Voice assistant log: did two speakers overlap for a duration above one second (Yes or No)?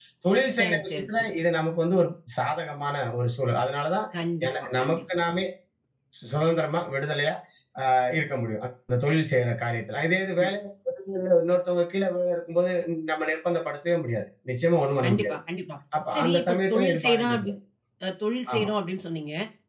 Yes